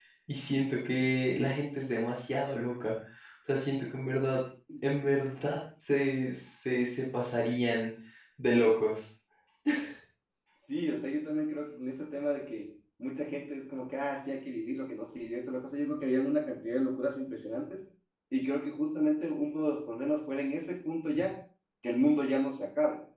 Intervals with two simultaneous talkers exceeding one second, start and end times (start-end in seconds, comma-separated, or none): none